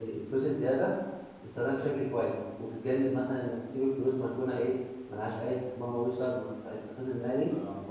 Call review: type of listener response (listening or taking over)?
listening